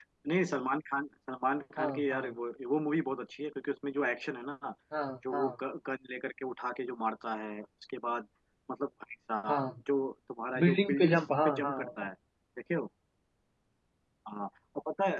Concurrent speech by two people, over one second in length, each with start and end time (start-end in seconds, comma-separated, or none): 10.6-12.1